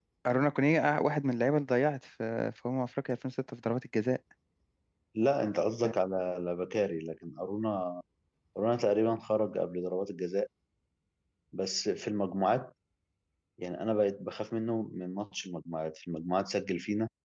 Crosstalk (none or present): none